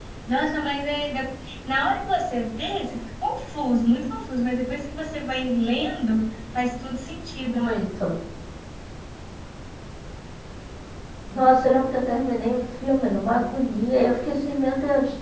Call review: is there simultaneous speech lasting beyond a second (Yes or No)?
No